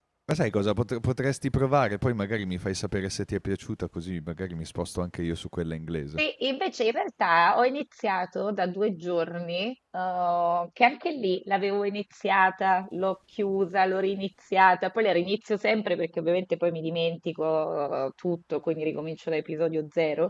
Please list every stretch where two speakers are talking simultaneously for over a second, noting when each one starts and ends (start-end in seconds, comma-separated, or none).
none